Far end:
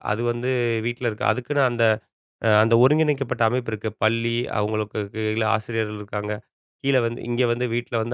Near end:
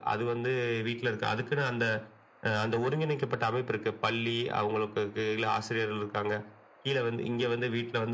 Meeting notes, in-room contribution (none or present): none